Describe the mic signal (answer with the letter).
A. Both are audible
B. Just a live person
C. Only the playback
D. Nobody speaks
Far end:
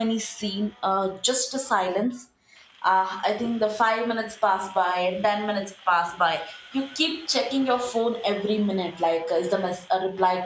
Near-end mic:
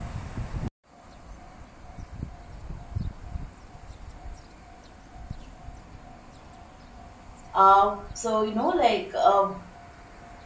B